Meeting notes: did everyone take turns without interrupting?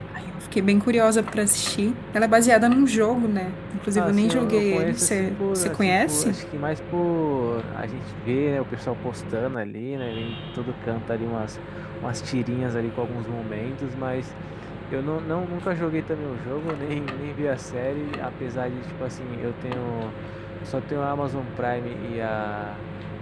No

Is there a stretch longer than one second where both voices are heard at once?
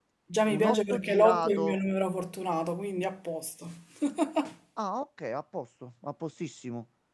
Yes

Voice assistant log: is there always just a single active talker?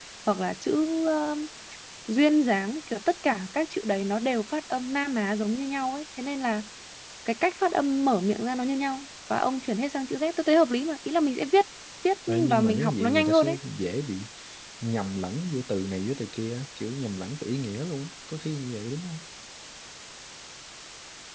No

